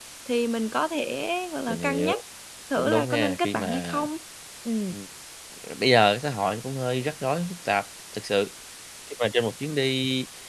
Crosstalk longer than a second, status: present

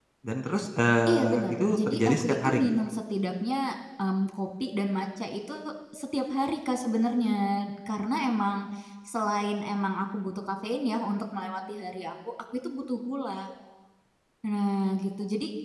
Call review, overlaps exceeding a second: present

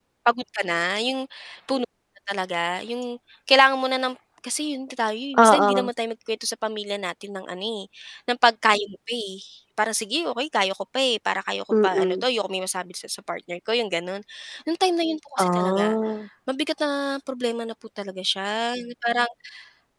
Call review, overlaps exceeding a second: none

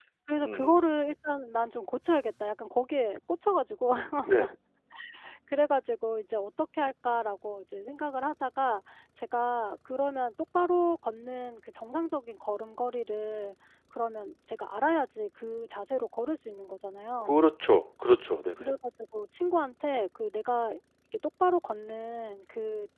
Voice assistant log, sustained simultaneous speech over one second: none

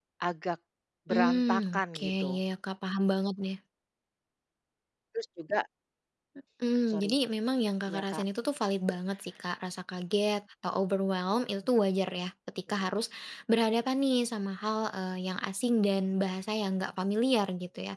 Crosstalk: present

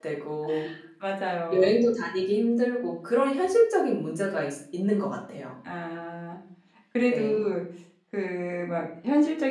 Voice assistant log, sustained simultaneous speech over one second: none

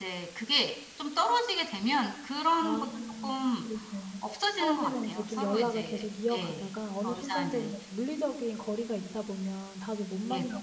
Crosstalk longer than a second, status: present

